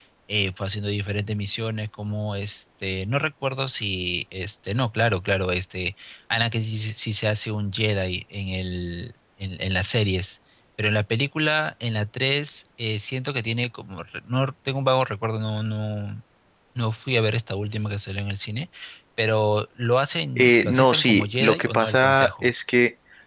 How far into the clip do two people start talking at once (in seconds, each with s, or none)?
20.4 s